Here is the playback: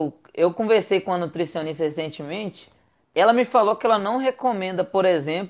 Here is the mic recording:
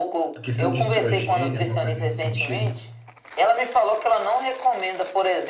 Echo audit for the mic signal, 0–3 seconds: both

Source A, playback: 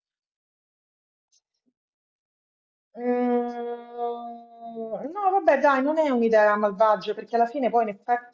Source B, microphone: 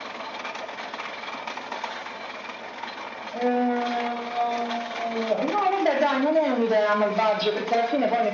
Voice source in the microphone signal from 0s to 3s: neither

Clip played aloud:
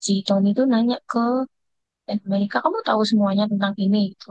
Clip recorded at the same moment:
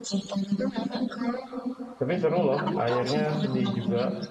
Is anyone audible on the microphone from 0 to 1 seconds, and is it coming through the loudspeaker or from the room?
echo only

